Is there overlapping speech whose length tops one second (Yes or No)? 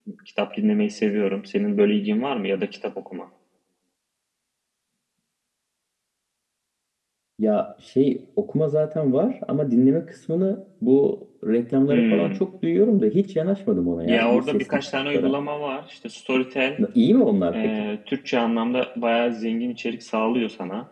Yes